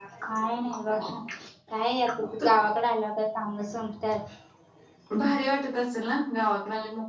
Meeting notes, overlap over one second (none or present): none